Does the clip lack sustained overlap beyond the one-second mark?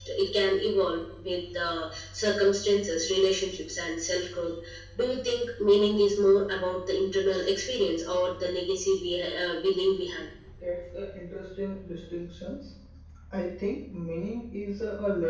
Yes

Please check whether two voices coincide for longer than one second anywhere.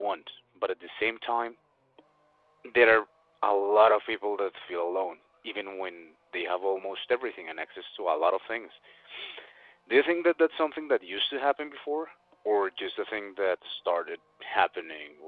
No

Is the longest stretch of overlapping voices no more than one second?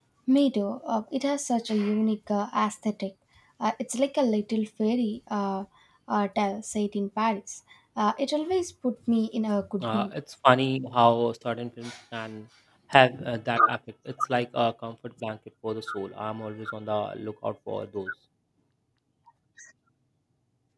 Yes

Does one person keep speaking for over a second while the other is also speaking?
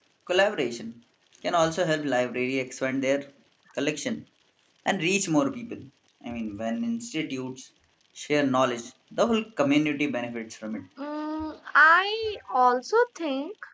No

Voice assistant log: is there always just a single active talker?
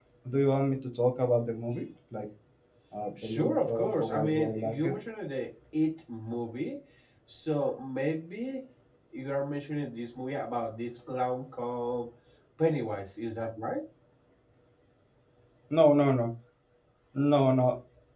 No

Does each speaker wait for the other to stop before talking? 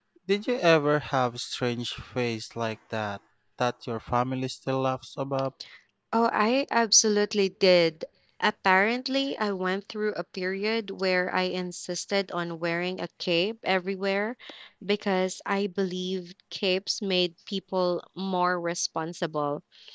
Yes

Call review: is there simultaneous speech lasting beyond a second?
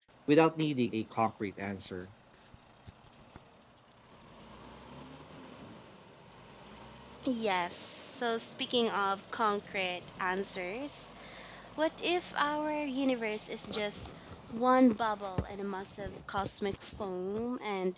No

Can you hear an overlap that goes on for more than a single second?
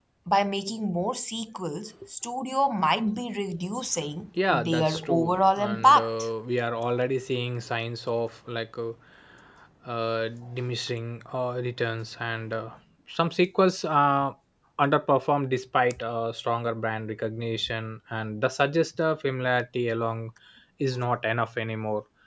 Yes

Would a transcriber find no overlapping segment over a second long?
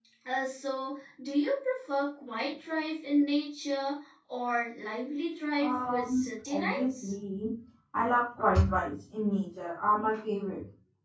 No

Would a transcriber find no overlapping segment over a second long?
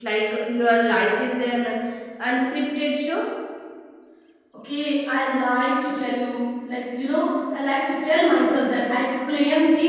Yes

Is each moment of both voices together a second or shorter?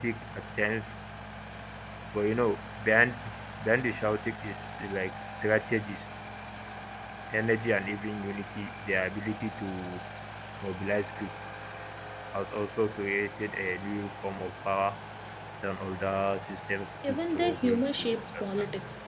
No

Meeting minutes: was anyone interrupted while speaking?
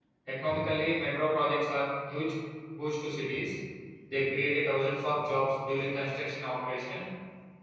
No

